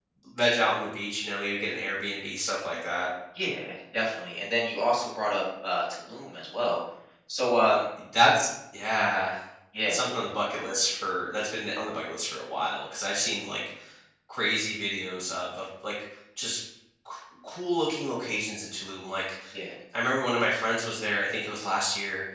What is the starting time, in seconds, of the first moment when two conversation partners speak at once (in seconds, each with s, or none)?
none